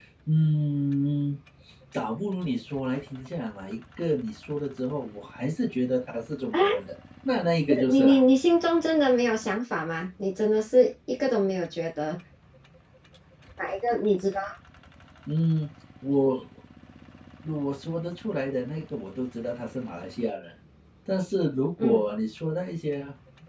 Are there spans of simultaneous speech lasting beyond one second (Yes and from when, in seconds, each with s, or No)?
No